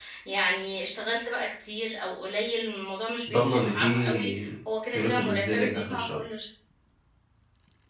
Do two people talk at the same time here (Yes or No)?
Yes